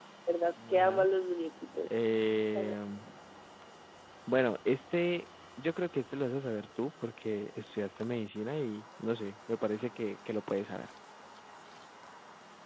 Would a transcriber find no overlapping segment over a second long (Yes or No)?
Yes